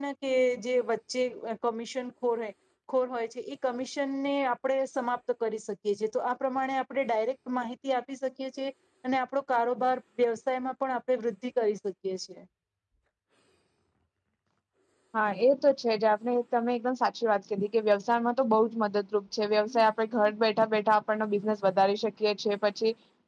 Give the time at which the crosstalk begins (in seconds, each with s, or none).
none